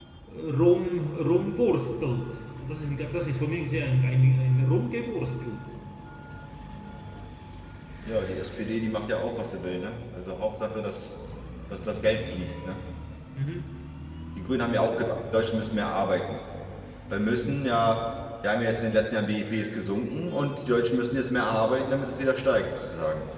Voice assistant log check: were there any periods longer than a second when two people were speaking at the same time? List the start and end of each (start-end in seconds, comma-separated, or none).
none